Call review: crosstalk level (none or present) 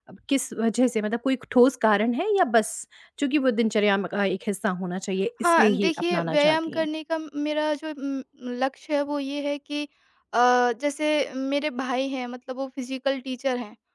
present